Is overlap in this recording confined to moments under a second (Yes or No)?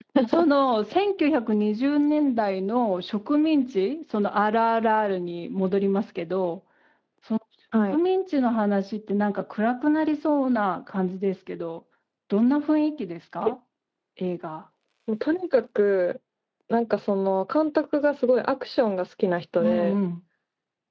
Yes